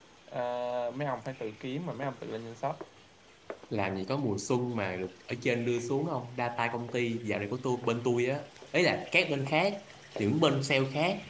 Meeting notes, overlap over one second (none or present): none